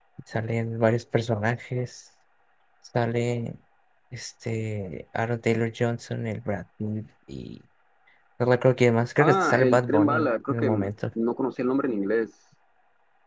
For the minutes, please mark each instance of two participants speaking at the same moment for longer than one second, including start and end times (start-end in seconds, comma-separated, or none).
9.2-10.9